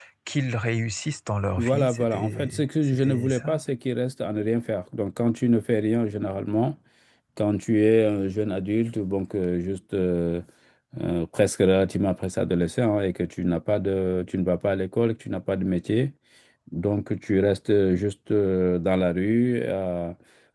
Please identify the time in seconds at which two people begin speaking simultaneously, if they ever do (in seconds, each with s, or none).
1.6 s